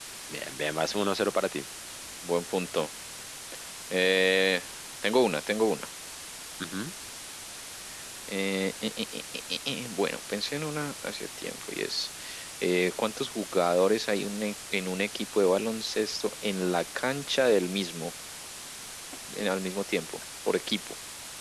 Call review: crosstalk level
none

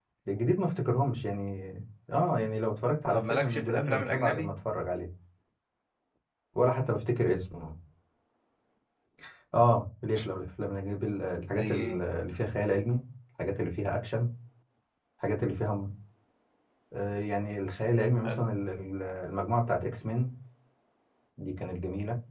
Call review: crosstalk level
present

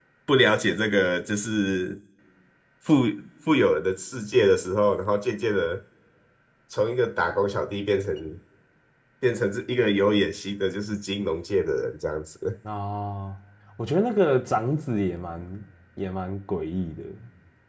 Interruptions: none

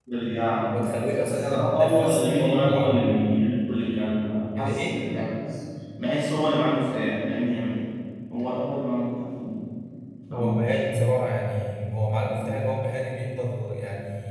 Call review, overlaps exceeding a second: present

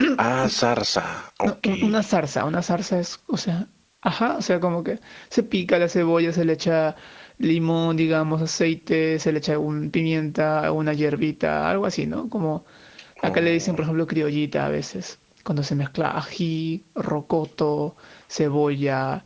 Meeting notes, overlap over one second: none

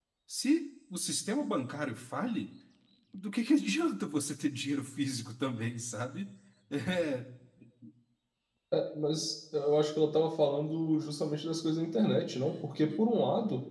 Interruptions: none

